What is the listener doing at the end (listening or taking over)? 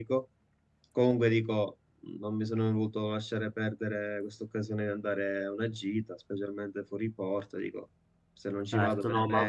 taking over